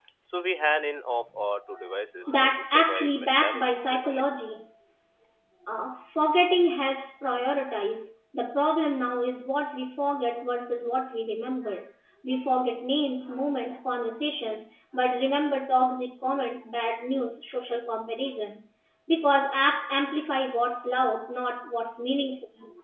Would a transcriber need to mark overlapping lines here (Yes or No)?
Yes